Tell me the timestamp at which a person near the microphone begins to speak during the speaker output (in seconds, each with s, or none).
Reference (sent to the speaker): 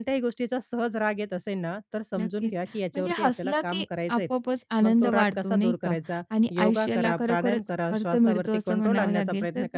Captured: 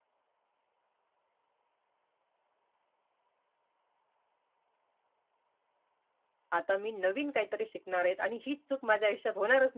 6.6 s